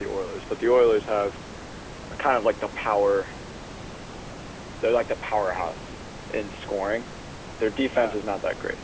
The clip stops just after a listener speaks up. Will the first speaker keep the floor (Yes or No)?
Yes